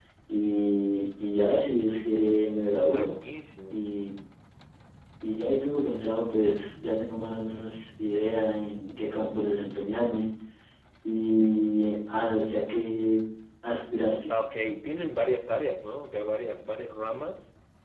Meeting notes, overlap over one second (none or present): none